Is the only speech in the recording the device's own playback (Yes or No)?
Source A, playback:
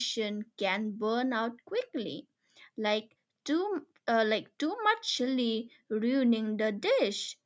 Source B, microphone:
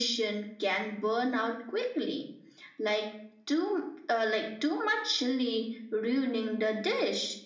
Yes